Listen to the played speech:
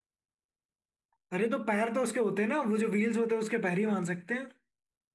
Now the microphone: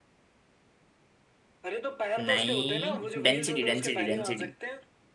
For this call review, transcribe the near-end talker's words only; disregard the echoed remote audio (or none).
नहीं डेंसिटी डेंसिटी डेंसिटी